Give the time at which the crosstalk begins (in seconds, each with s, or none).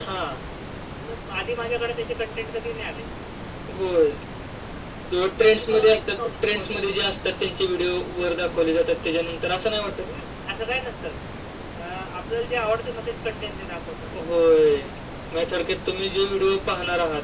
5.4 s